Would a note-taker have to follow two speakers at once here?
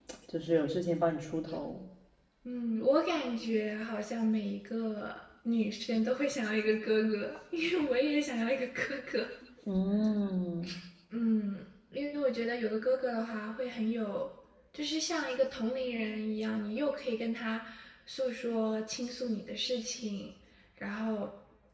No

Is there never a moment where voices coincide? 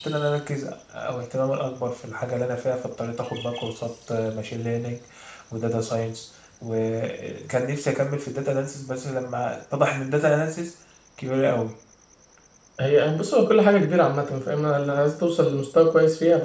Yes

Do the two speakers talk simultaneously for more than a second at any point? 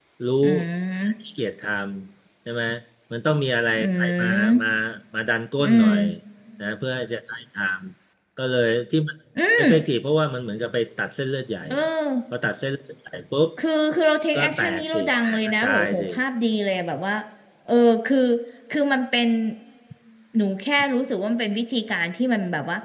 Yes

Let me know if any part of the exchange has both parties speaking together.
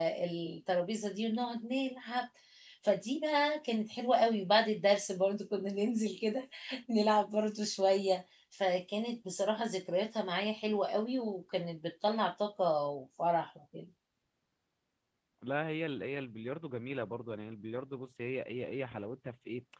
No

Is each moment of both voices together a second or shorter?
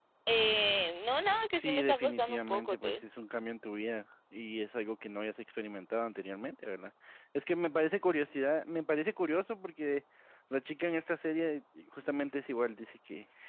No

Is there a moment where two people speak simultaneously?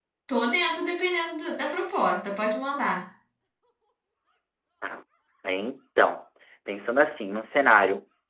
No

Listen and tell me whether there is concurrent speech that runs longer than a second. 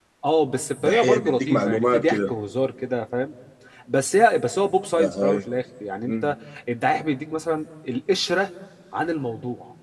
Yes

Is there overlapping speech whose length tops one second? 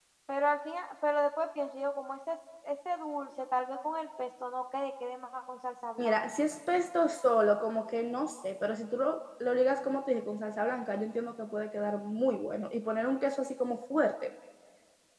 No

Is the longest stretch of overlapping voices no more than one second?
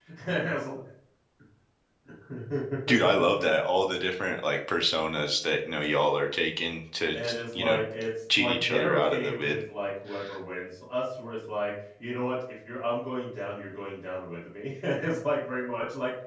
No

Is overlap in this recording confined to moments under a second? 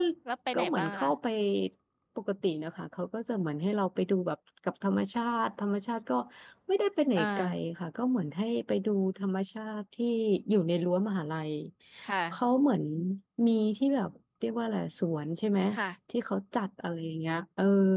Yes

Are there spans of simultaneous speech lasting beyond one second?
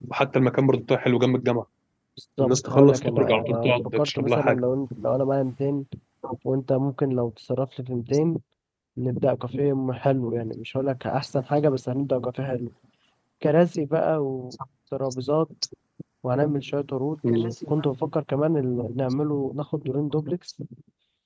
Yes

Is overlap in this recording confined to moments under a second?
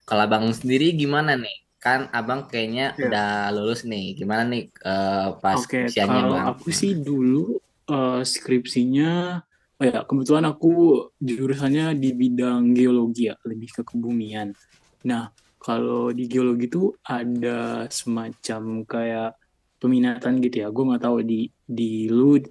No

